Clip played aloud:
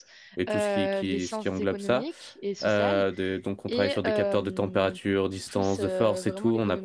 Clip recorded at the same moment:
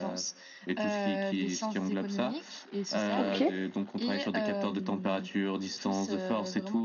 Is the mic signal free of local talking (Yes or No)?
No